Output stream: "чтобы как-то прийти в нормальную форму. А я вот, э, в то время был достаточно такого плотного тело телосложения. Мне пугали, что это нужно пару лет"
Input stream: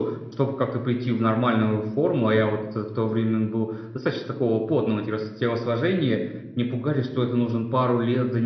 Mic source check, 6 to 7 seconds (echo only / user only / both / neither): echo only